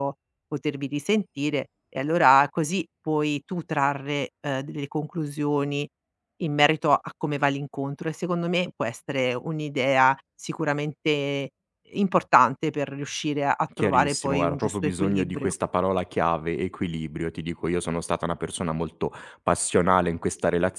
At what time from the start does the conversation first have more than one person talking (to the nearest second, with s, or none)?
14 s